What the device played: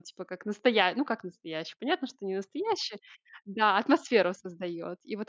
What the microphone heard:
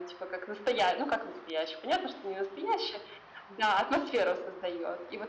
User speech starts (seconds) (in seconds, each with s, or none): none